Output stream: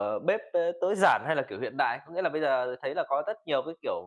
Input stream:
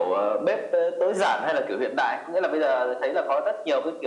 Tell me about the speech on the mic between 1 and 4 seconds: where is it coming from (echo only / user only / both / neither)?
echo only